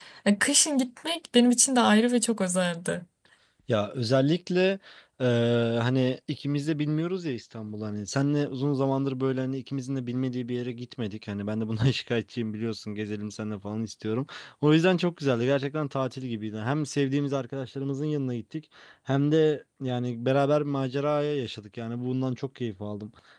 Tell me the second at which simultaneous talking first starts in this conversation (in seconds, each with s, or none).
none